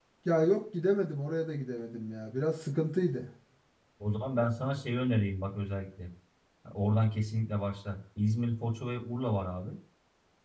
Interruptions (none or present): none